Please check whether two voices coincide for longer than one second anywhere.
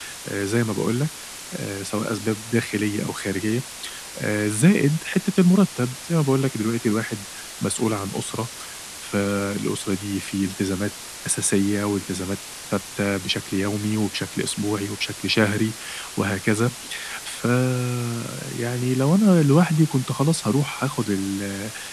No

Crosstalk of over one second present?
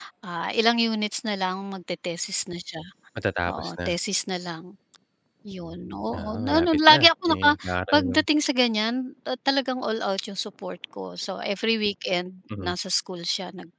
Yes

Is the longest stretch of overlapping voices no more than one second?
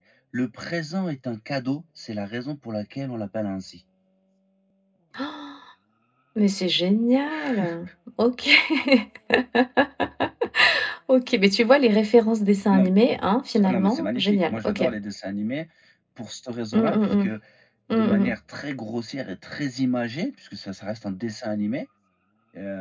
No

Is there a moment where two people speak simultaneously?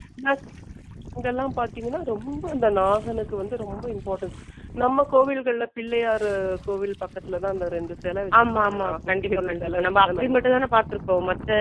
Yes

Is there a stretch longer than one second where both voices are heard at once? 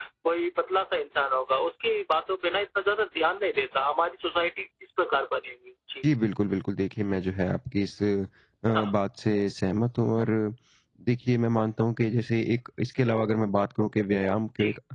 No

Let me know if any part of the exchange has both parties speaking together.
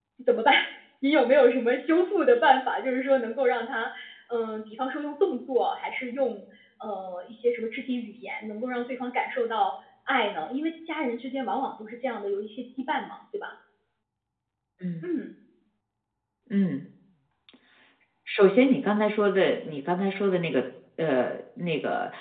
No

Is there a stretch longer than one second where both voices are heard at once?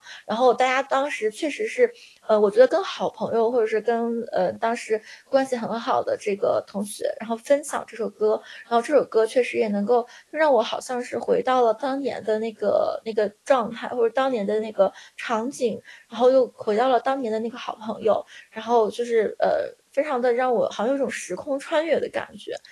No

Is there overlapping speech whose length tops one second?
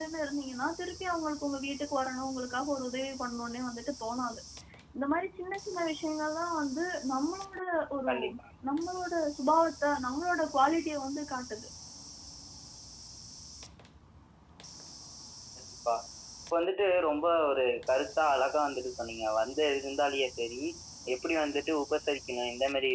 No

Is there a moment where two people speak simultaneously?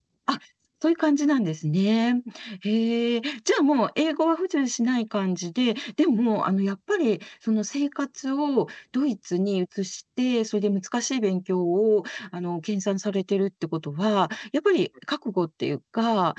No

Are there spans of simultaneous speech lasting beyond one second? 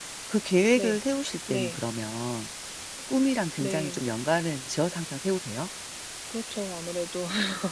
No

